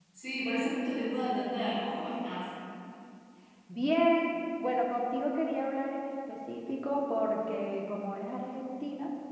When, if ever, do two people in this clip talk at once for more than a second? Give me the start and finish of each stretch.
none

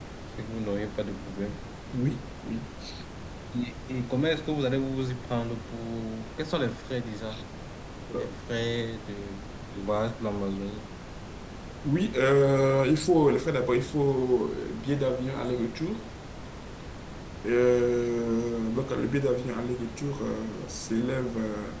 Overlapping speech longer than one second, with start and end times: none

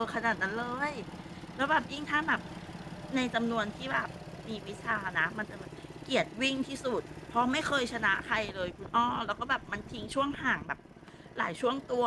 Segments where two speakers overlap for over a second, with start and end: none

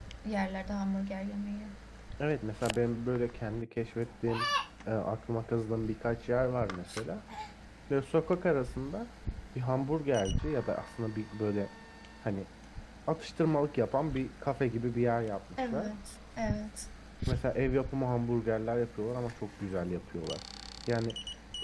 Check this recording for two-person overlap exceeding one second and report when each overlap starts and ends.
none

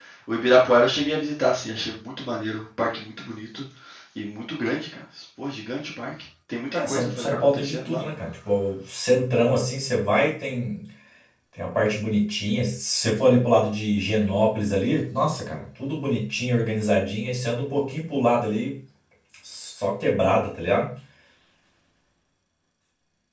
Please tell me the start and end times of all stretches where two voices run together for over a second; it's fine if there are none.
6.8-8.0

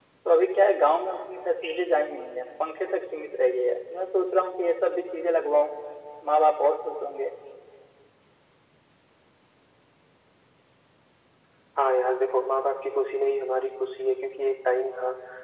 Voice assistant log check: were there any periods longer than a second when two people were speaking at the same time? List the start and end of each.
none

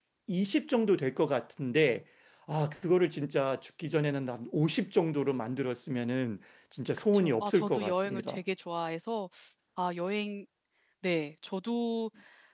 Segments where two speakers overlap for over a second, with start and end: 7.1-8.4

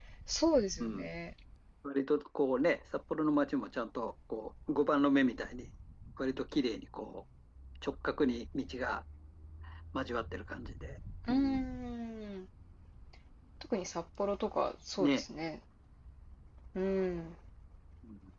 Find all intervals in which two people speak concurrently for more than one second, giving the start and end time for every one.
none

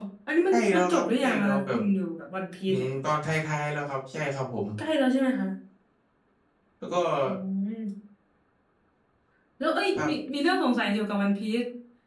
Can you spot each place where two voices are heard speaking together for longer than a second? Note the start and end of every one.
0.5-1.8

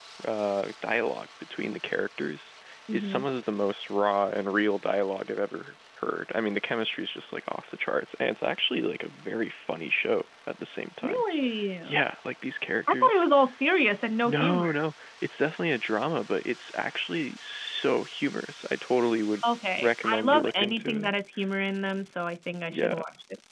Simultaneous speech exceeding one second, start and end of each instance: 19.8-21.1

